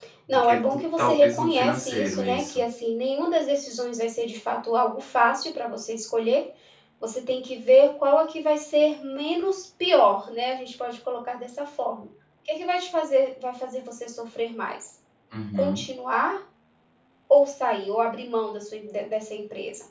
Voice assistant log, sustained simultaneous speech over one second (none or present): present